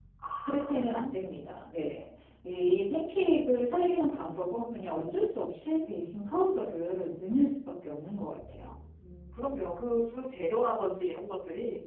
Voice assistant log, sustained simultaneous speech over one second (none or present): none